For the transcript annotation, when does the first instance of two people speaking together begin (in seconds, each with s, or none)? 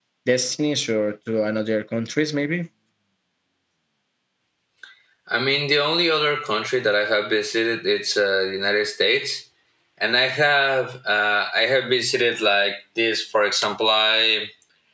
none